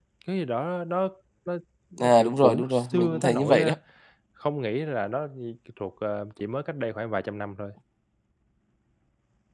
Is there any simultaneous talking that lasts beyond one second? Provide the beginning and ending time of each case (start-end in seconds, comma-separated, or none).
2.0-3.7